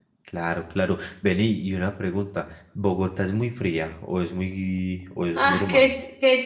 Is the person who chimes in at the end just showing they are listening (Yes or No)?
No